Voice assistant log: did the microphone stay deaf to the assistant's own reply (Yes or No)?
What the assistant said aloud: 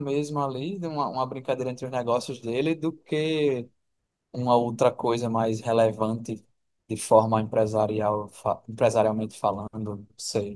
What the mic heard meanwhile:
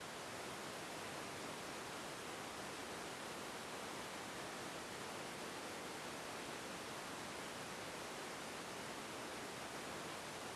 Yes